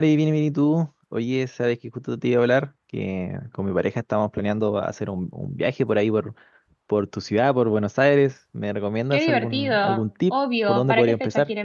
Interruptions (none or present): present